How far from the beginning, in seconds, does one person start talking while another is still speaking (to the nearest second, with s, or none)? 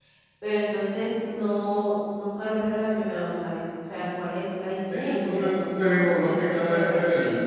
5 s